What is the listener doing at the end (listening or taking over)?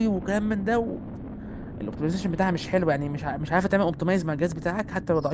taking over